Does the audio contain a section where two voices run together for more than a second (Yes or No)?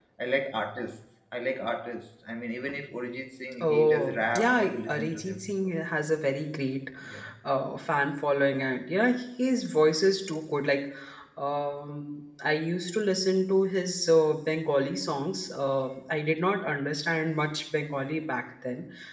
Yes